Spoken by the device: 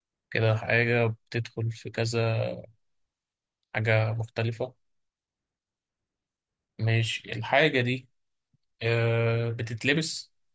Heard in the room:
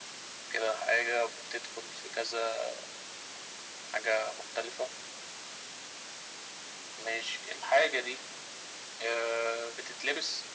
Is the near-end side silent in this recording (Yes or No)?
Yes